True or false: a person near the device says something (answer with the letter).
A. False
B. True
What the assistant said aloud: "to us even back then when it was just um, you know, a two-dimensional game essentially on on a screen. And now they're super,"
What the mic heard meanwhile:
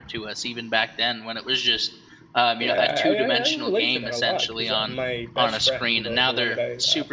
B